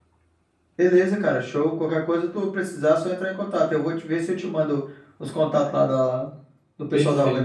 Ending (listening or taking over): taking over